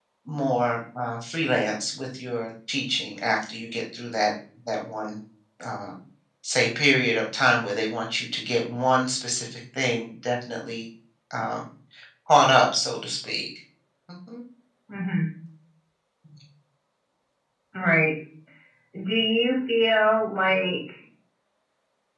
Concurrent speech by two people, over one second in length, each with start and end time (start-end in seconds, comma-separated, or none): none